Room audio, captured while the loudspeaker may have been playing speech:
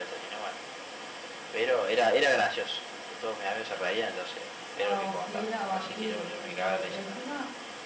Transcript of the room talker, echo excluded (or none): Ah, sí, era horrible, porque encima,